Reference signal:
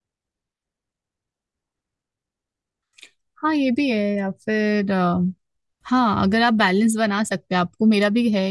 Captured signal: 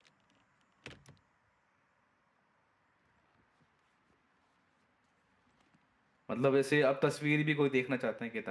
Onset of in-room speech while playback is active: 6 s

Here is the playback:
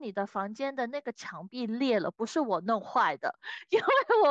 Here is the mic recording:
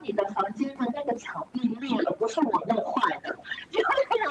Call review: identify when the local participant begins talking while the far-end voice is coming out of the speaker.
none

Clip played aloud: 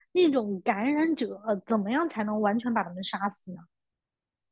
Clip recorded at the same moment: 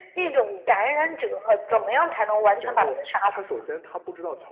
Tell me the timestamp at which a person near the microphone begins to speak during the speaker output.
3 s

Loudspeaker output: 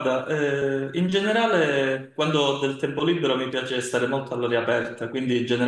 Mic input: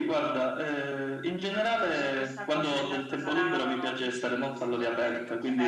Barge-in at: 2 s

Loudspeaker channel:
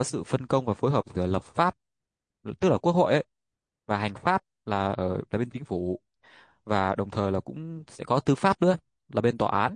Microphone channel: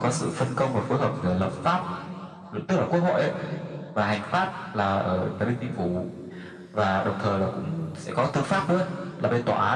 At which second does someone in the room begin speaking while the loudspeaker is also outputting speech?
none

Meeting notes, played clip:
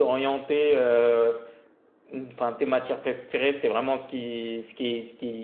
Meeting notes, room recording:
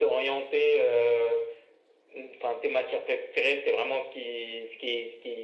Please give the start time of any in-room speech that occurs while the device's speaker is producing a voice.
none

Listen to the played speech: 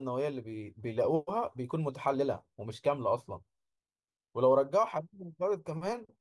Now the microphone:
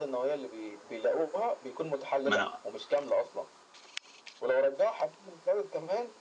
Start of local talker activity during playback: 2 s

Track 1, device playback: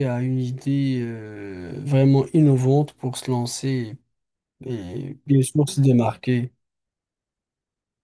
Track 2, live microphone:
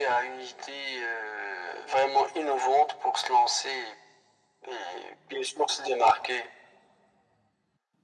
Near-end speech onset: none

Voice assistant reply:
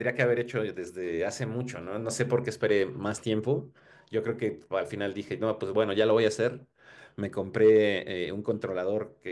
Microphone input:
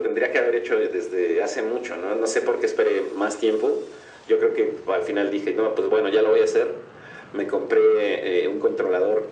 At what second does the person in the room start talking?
none

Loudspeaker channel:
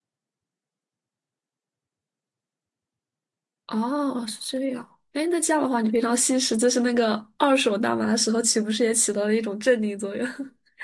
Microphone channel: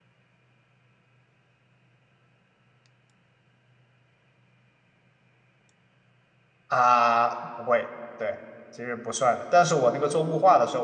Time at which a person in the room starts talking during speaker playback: 7 s

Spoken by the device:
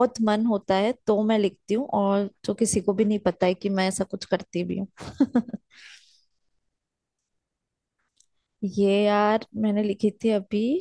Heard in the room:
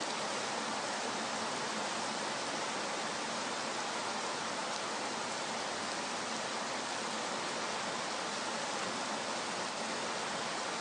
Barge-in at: none

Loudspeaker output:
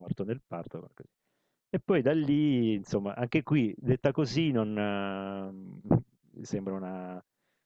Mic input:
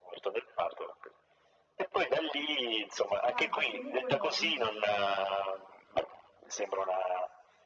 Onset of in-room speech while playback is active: 3 s

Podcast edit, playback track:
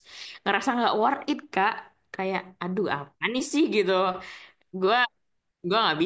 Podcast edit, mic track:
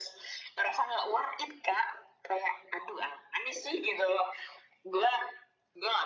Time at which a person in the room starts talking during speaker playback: none

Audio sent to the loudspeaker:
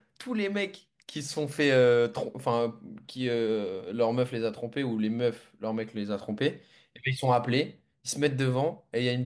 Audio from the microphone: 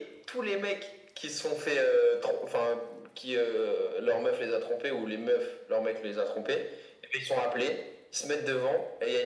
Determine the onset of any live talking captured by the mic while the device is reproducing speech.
none

